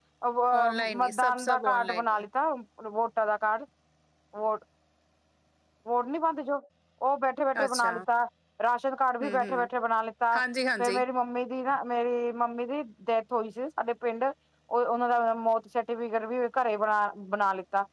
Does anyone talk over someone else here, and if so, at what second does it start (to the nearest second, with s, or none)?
1 s